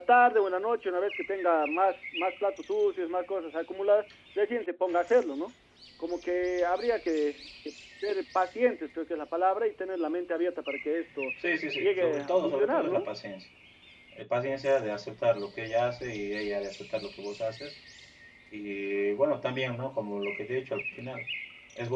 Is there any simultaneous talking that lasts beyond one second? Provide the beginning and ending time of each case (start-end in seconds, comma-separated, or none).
11.8-13.0